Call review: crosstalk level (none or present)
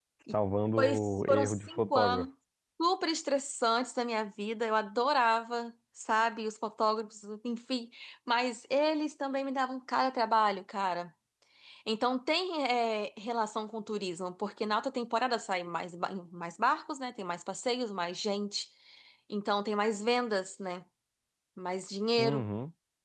present